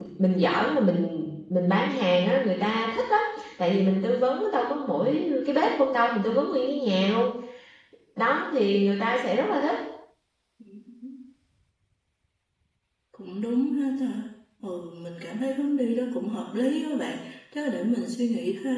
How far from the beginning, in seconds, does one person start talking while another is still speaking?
none

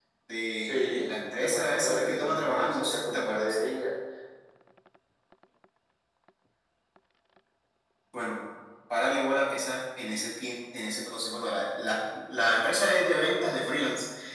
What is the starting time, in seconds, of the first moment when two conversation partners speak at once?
0.7 s

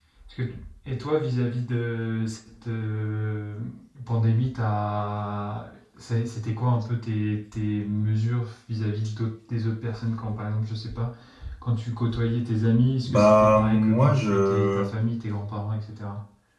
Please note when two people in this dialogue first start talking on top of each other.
13.0 s

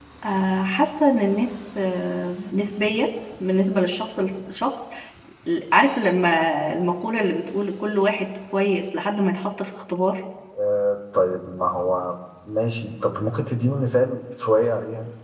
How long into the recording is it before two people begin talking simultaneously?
none

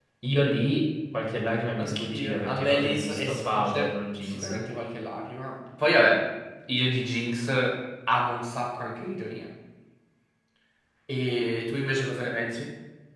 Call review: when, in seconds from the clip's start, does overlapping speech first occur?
1.8 s

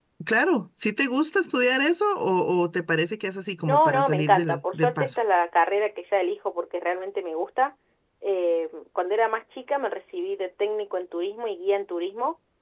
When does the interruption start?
3.7 s

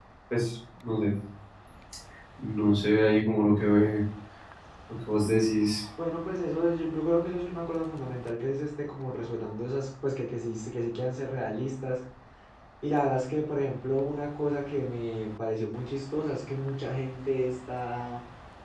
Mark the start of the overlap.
none

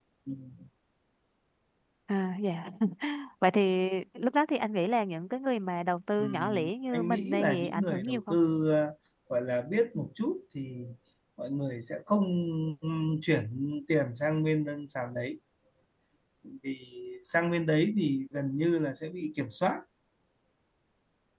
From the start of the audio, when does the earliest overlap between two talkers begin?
6.2 s

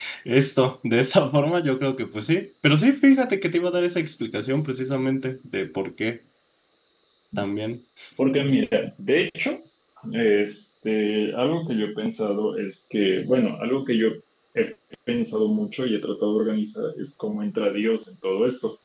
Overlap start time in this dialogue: none

